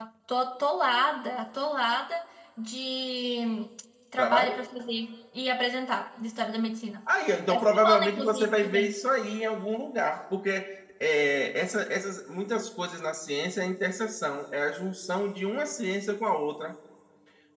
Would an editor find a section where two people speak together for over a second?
Yes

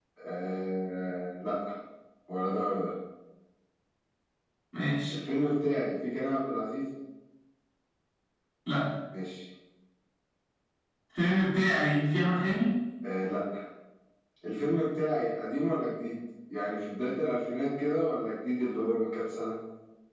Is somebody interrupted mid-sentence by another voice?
No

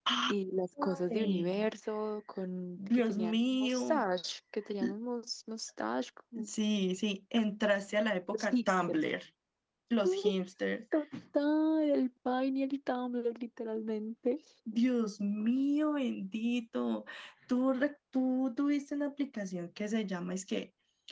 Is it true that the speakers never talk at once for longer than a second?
No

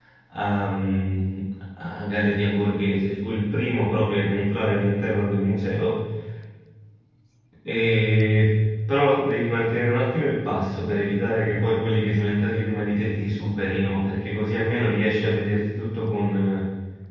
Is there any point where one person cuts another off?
No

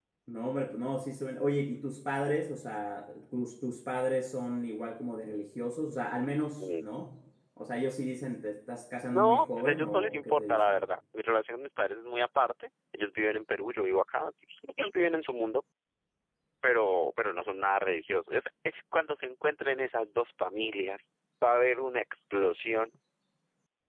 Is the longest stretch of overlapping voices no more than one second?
No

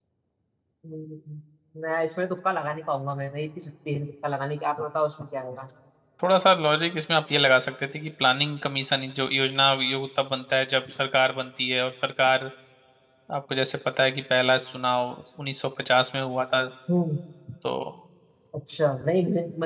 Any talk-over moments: No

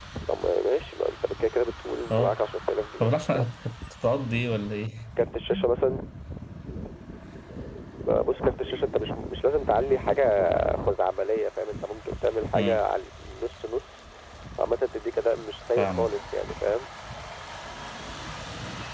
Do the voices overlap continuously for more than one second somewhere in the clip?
No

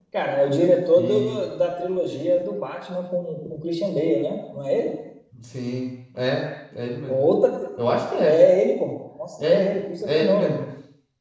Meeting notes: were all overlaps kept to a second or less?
Yes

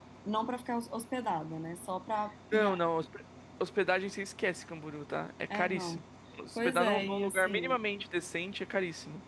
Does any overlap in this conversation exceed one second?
Yes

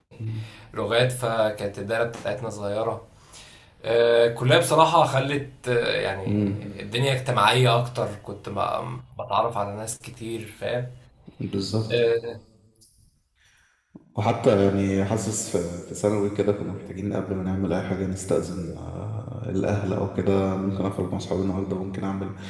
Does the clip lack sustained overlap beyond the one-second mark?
Yes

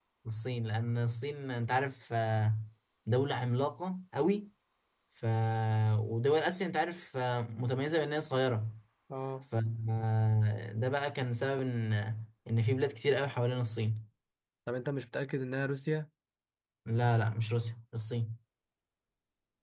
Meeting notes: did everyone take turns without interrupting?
Yes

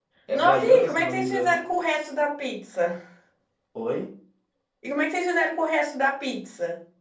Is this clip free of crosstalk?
No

